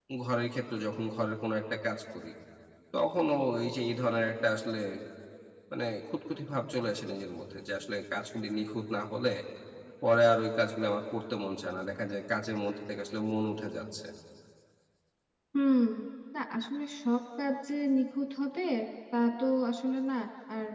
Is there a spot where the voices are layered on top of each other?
No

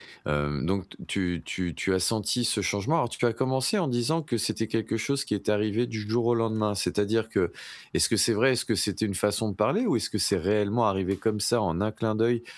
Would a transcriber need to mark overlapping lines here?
No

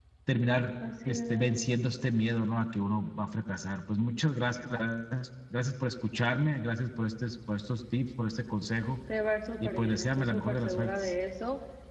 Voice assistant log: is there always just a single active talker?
No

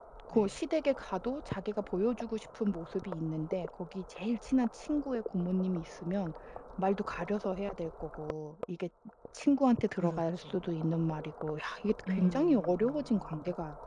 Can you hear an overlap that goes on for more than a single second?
Yes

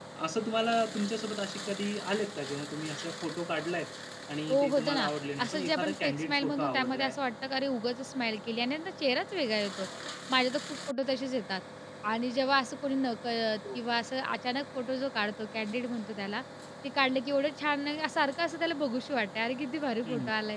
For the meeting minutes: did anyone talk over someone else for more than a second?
Yes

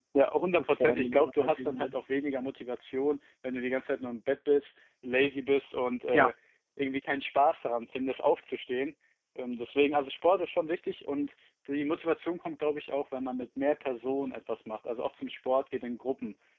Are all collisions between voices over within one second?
No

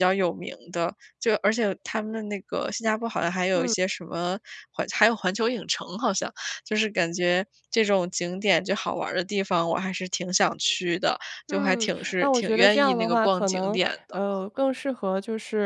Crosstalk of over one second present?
Yes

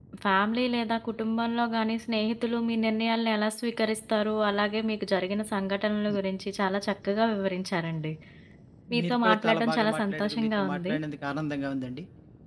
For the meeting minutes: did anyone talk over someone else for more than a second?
Yes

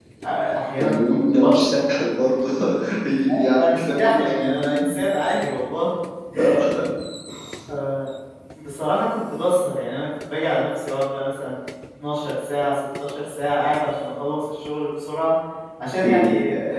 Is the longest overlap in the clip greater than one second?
Yes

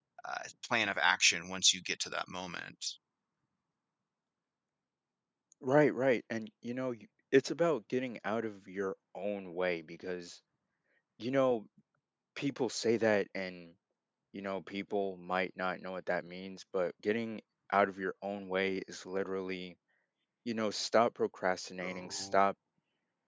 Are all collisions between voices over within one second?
Yes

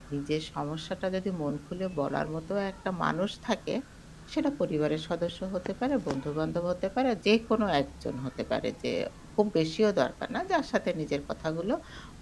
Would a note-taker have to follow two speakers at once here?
No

